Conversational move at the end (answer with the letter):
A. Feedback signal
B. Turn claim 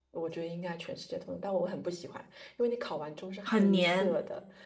A